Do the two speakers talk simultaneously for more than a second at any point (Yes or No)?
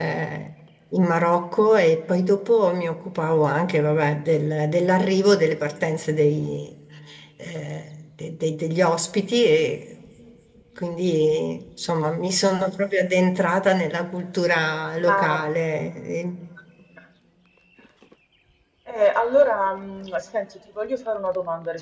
No